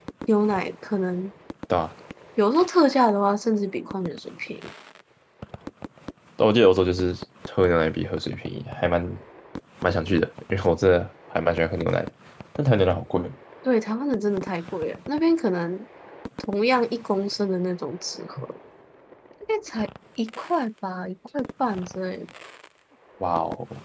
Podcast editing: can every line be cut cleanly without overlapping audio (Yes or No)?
Yes